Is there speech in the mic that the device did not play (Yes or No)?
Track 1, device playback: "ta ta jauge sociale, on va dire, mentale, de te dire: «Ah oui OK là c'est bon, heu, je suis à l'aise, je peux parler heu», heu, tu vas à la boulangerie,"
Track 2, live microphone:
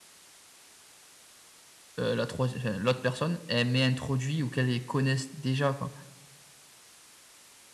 Yes